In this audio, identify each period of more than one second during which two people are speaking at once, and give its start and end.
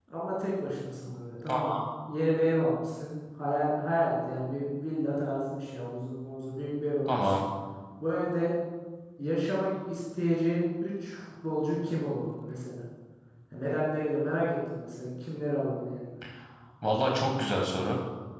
none

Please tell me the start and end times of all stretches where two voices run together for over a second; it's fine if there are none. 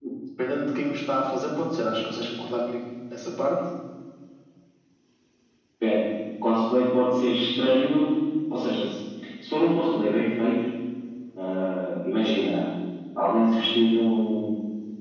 none

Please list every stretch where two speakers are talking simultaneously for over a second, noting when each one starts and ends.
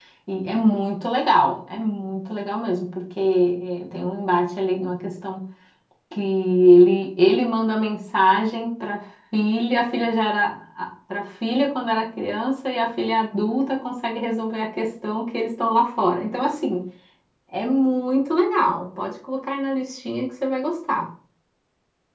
none

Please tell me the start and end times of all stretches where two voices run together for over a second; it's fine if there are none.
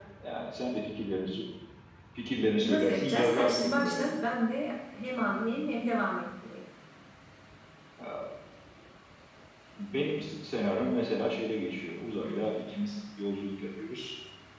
2.6-4.1

